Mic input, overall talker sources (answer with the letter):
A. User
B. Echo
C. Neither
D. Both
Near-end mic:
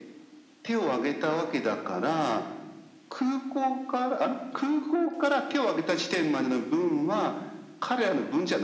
B